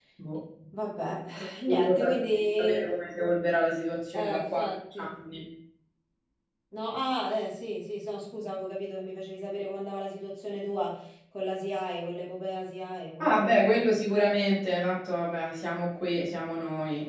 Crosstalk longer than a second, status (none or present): present